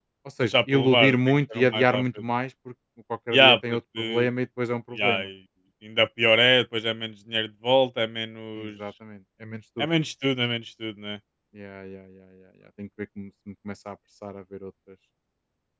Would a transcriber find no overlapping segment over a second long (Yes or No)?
No